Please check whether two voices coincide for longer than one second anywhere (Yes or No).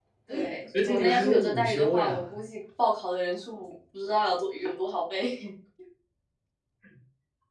Yes